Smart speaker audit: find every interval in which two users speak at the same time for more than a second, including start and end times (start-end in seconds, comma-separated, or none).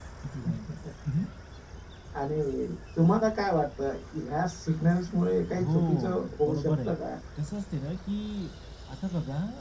5.5-6.9